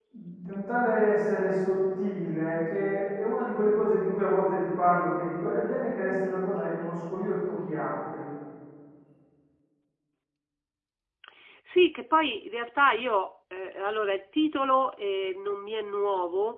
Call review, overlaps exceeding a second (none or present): none